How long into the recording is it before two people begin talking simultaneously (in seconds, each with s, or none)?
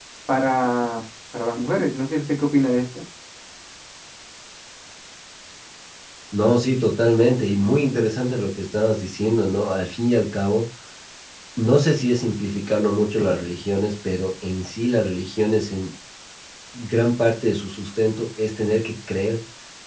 none